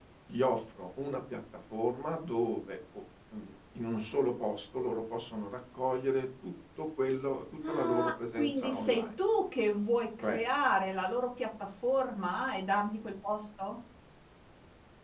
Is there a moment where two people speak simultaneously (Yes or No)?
Yes